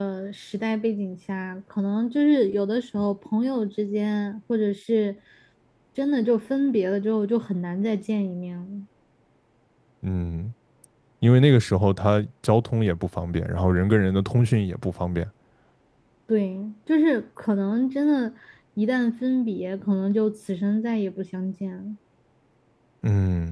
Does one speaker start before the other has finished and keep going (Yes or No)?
No